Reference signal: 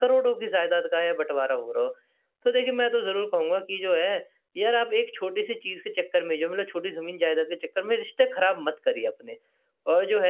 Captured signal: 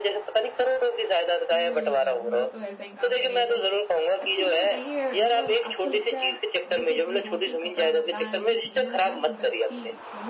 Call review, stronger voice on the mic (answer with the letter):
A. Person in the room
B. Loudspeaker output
B